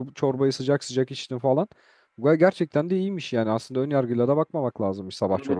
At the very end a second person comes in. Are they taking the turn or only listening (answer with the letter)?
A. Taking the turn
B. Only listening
A